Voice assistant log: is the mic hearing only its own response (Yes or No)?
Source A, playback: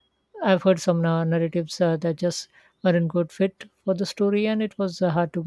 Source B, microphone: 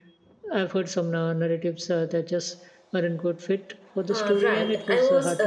No